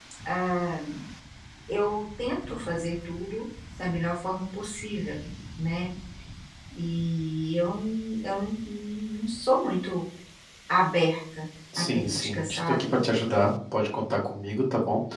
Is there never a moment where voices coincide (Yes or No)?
No